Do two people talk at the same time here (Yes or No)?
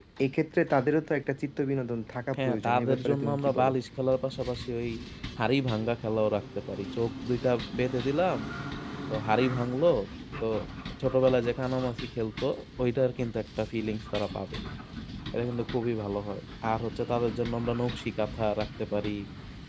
Yes